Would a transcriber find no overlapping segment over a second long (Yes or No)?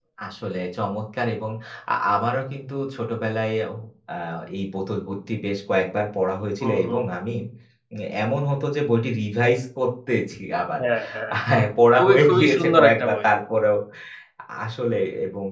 No